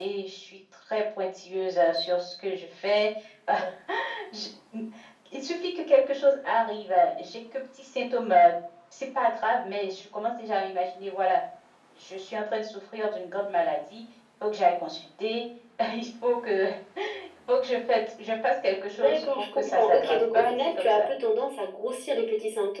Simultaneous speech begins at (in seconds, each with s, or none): 18.9 s